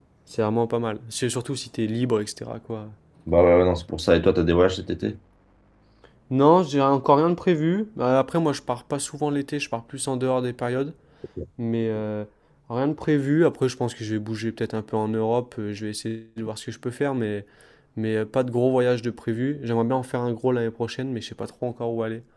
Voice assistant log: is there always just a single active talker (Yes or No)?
Yes